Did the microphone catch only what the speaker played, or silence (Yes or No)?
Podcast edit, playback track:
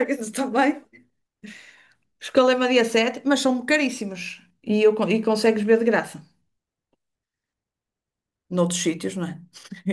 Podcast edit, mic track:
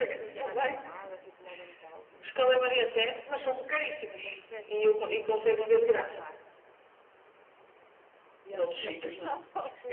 No